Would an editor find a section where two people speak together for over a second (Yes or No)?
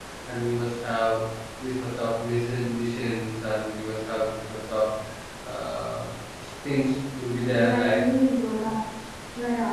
No